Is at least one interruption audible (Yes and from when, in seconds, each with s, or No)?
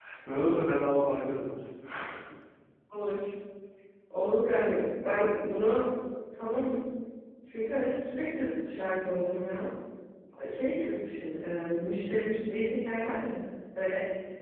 No